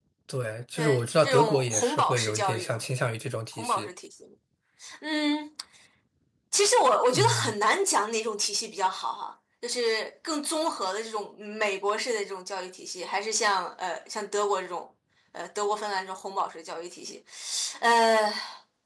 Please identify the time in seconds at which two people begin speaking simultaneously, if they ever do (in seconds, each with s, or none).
0.8 s